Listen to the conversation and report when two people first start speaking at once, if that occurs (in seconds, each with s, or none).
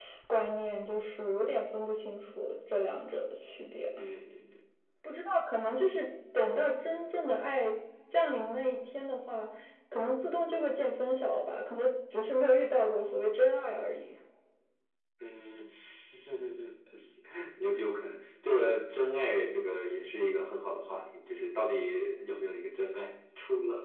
none